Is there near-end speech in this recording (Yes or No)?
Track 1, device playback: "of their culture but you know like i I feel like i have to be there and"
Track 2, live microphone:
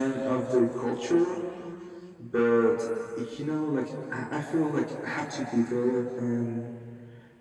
No